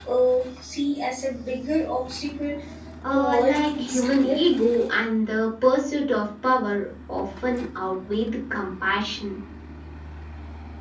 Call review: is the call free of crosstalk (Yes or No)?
No